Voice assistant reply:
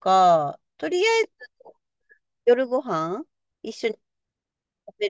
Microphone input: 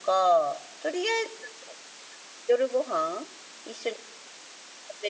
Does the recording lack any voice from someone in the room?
Yes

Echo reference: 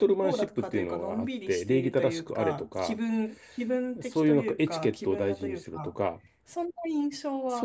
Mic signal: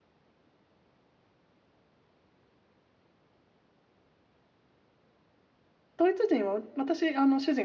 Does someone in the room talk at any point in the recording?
Yes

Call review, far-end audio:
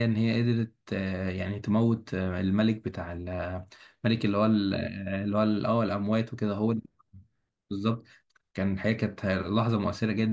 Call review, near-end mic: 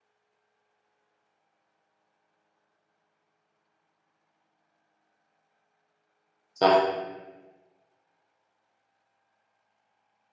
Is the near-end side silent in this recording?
No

